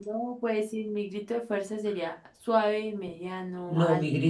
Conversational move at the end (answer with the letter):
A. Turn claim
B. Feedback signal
A